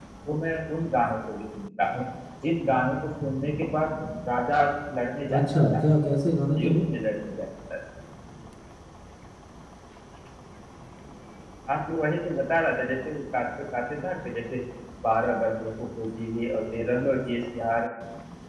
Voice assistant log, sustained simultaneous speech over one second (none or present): none